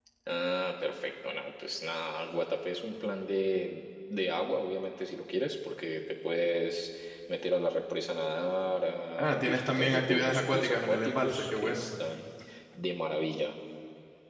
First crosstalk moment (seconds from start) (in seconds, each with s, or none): 9.2 s